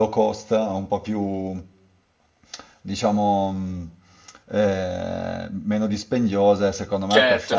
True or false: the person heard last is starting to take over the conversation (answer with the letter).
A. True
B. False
A